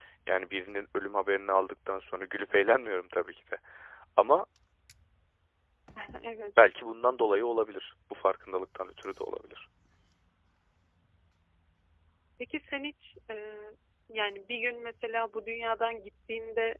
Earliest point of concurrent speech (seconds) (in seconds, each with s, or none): none